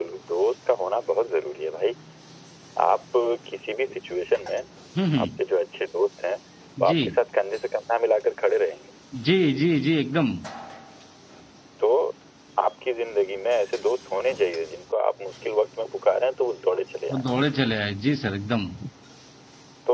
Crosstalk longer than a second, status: none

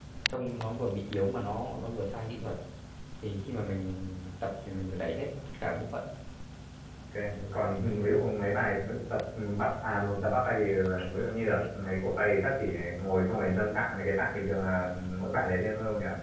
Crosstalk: none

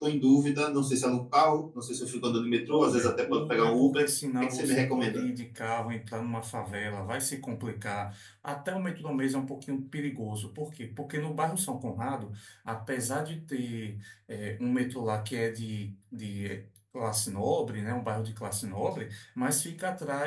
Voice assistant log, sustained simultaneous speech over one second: present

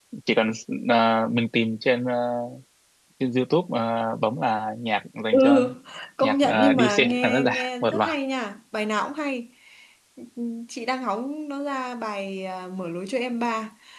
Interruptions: present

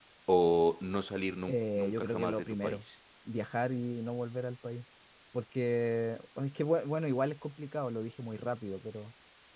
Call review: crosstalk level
present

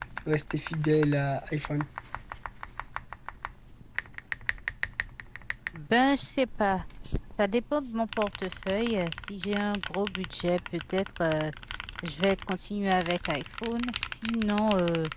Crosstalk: none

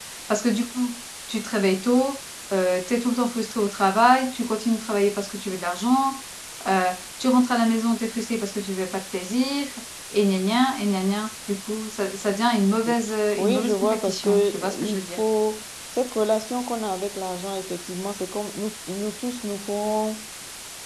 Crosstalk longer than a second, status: present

